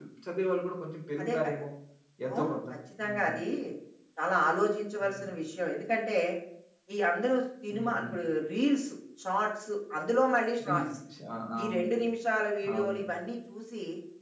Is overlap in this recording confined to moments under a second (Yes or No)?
Yes